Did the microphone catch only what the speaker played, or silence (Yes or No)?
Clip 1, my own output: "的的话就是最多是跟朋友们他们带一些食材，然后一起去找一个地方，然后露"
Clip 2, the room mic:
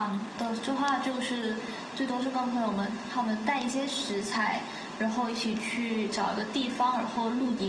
Yes